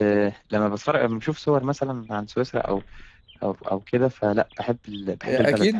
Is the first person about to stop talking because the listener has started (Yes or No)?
Yes